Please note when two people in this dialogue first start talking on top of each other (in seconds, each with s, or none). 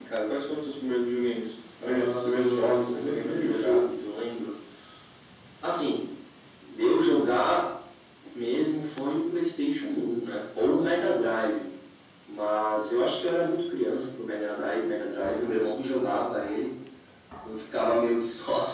1.8 s